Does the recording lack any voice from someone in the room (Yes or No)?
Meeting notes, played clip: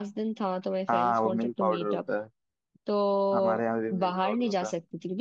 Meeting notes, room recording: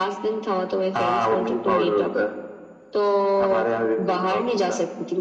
Yes